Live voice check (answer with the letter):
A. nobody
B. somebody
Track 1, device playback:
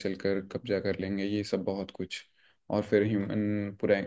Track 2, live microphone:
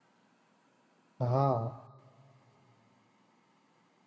B